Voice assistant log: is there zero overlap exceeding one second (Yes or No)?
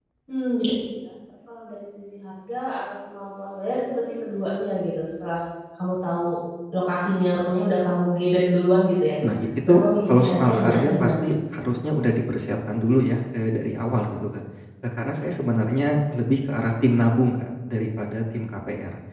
No